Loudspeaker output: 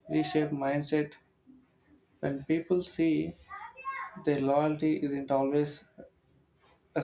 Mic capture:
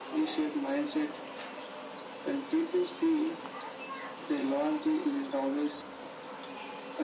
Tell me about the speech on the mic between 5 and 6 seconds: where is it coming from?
echo only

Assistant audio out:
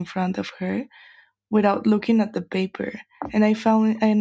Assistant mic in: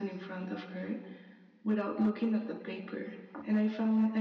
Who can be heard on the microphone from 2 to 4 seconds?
echo only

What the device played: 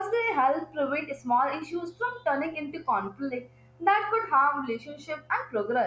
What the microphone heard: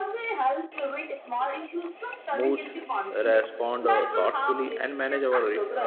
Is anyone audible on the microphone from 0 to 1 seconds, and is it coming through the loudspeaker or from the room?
echo only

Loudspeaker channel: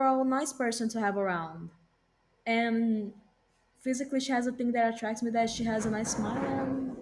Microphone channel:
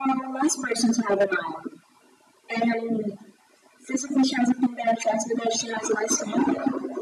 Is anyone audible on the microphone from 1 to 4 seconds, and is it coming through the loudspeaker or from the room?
echo only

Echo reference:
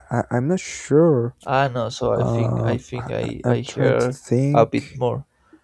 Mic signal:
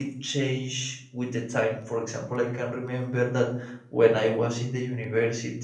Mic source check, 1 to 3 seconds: user only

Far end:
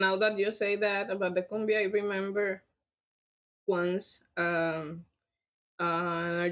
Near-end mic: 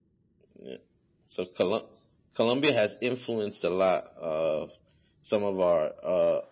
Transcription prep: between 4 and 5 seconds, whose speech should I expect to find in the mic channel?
user only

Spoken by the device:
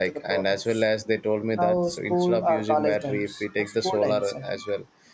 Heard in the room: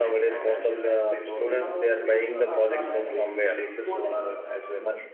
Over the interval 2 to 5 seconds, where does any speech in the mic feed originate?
both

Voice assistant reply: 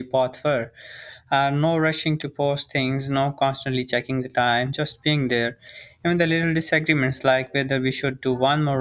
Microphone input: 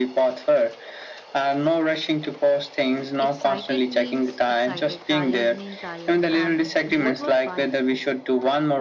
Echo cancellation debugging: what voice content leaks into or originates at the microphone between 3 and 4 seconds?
both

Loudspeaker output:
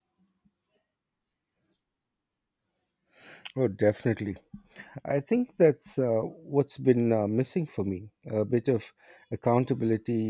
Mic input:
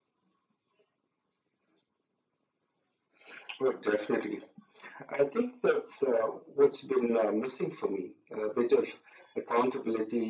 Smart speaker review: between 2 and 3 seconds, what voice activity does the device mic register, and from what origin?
neither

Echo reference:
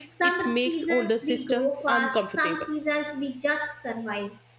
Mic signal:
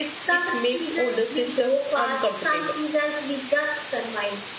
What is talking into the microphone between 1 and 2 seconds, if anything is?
echo only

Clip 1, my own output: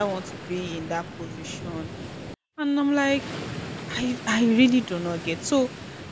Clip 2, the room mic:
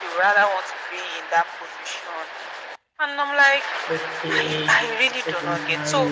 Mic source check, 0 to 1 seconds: echo only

